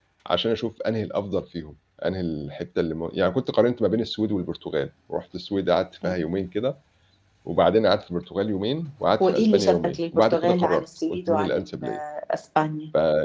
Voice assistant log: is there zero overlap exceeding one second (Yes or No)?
No